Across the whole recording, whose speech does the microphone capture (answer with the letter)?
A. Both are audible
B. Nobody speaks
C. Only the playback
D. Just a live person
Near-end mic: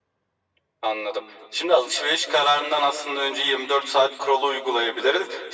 C